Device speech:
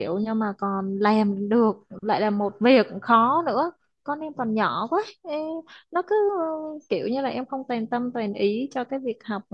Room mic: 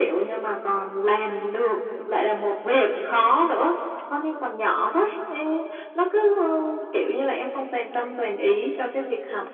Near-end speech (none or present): none